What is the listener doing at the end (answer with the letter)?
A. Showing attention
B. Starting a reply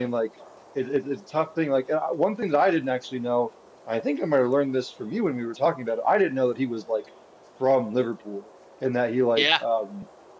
A